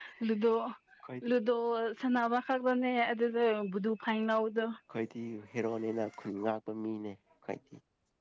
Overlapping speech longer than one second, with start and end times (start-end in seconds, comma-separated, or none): none